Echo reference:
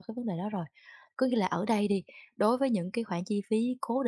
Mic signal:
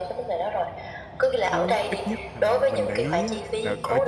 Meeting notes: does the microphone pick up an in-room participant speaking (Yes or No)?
Yes